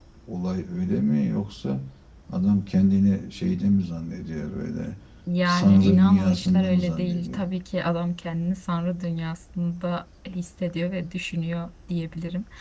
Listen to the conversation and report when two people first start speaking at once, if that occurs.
5.5 s

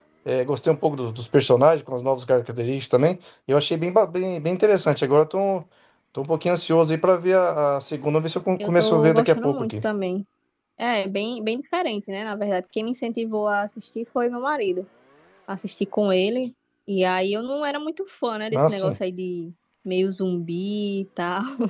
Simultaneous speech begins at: 8.6 s

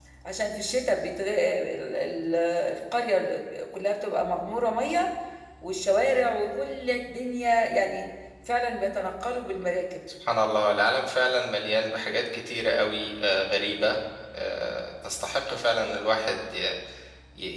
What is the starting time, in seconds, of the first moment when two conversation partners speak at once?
none

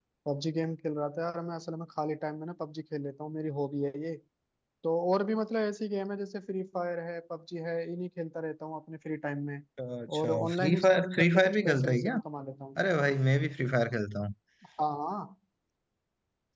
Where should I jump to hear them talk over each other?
10.2 s

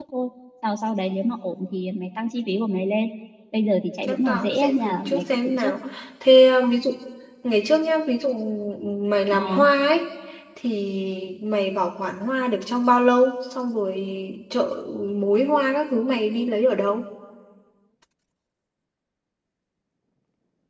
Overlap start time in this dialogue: 4.0 s

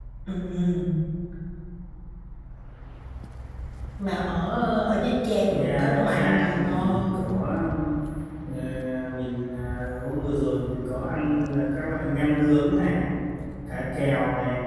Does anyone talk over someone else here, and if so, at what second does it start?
5.5 s

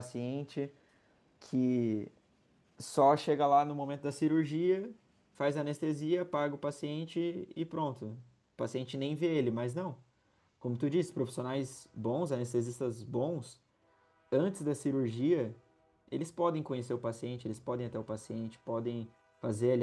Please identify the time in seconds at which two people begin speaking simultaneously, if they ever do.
none

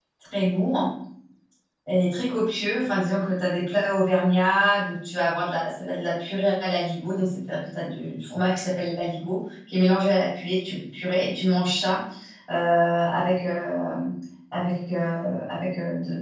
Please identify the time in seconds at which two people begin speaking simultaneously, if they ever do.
none

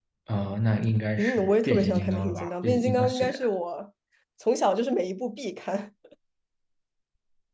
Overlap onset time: 1.2 s

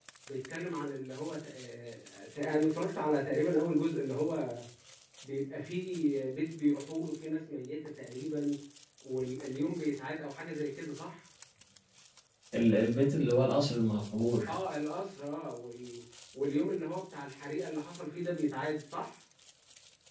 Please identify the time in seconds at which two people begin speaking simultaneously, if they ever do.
none

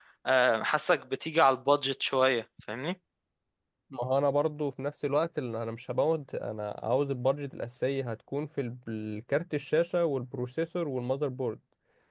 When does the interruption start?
none

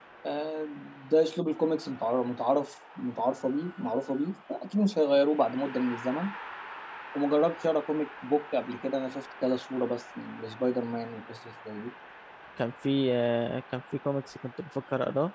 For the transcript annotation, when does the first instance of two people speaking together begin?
none

